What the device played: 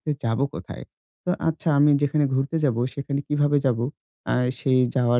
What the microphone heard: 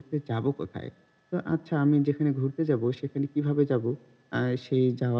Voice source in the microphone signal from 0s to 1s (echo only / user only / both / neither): echo only